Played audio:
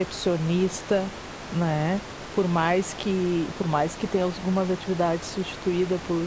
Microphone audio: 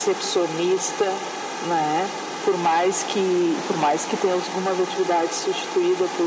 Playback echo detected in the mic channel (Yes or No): Yes